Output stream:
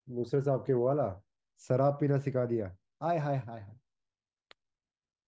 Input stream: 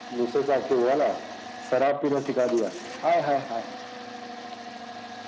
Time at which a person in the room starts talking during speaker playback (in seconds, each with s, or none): none